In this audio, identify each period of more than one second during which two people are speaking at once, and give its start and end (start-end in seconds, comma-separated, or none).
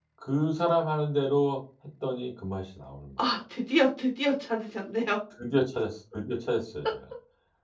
none